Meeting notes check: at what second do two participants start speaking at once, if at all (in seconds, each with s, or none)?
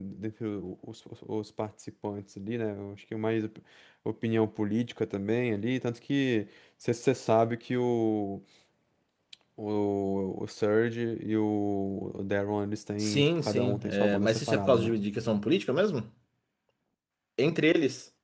13.0 s